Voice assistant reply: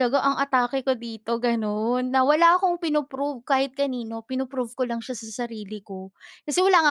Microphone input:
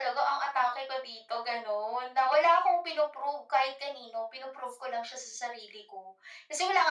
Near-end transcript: none

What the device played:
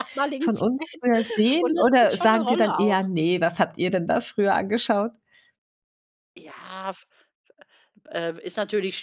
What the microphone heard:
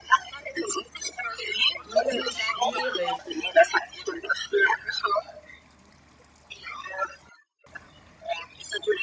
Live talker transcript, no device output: Mm, schwierig.

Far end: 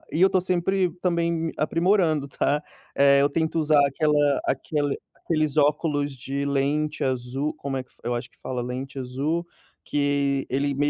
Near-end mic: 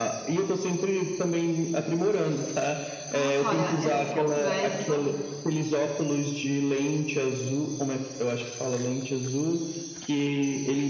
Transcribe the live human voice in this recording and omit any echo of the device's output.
Nossa olha essa conversa

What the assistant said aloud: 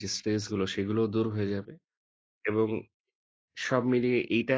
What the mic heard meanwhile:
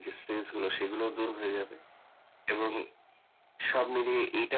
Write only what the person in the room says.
none

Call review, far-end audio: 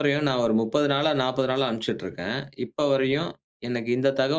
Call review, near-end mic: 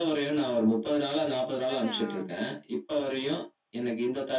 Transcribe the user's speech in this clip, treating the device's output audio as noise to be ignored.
அதான். ஆ.

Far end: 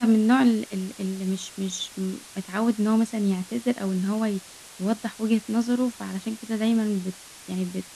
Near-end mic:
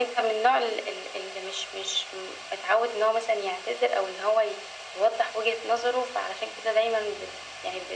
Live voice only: none

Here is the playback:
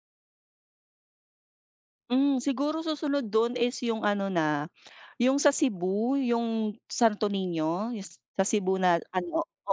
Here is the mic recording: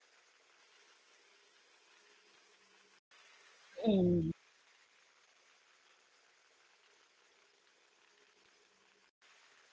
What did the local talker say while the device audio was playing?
Mm.

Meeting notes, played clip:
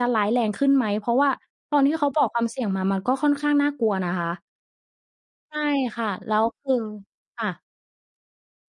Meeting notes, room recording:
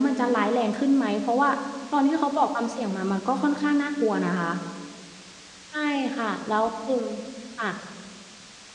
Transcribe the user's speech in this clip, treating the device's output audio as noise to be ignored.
none

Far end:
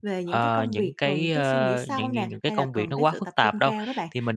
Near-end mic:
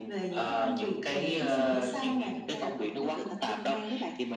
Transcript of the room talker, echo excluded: none

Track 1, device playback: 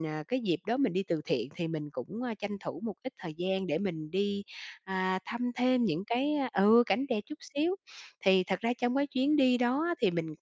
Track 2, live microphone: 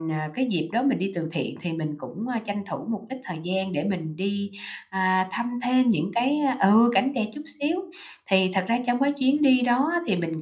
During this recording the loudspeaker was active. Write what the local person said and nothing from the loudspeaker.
none

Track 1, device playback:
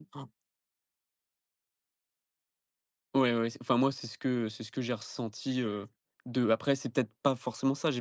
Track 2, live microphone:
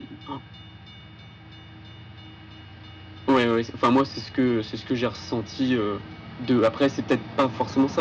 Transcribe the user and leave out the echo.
none

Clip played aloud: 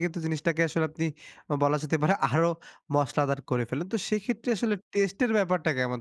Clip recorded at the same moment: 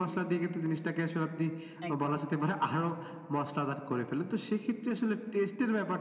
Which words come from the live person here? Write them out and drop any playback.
একদম।

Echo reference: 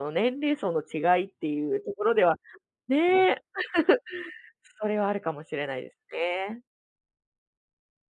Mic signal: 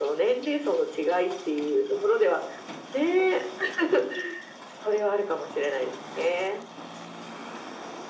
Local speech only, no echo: none

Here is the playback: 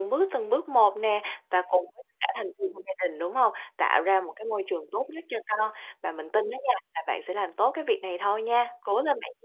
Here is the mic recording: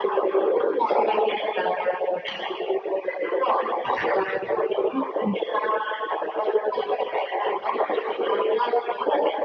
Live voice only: Ừm.

